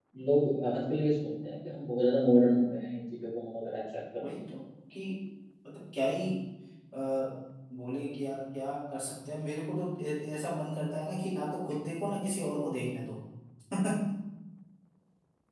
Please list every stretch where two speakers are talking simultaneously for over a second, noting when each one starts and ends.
none

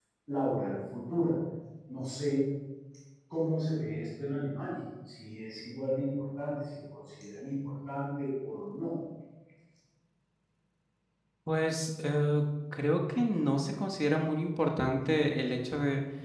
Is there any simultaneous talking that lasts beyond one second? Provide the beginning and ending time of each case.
none

